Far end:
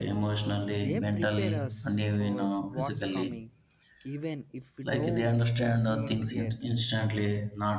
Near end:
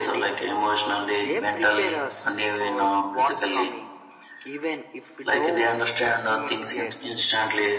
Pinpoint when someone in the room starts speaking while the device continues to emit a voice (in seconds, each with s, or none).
none